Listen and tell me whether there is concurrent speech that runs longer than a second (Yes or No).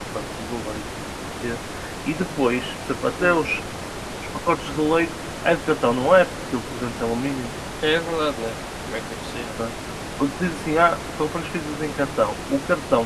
No